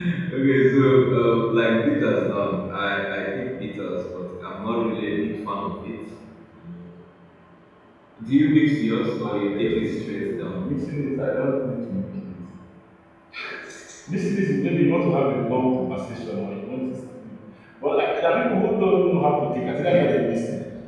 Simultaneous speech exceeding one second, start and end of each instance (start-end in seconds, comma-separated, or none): 9.2-10.6